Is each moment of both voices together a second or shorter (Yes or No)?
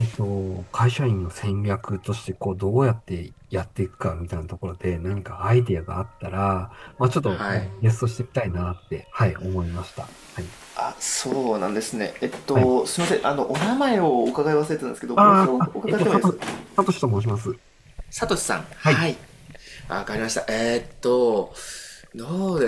No